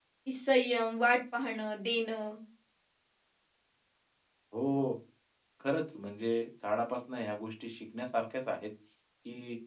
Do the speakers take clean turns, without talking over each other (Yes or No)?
Yes